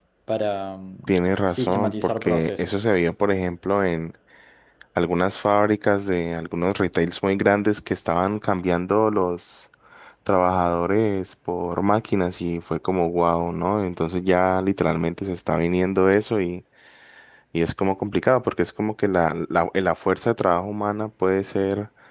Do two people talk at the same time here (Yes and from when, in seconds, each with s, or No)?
Yes, from 1.5 s